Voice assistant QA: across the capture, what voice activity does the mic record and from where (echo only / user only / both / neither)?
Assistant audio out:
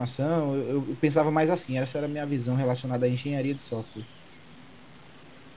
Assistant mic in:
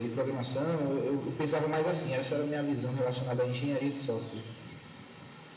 echo only